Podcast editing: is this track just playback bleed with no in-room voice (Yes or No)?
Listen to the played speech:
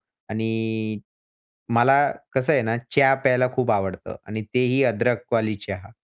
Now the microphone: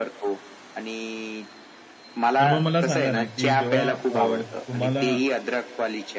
No